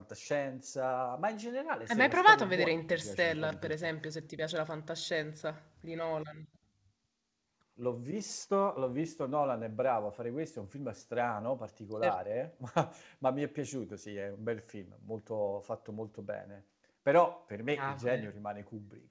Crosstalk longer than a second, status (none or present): present